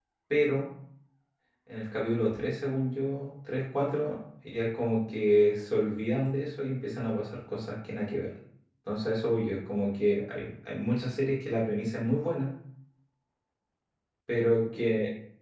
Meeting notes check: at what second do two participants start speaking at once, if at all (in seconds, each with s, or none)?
none